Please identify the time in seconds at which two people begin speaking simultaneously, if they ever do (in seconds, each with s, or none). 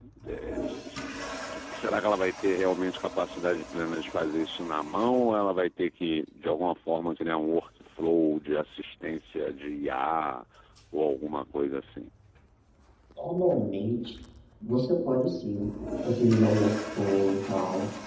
none